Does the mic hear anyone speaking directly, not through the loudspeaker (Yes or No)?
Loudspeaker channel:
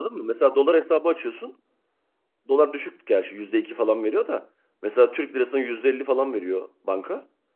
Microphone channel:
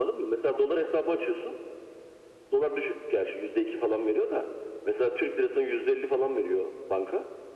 No